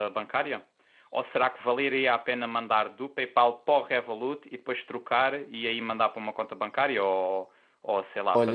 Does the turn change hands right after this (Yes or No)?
Yes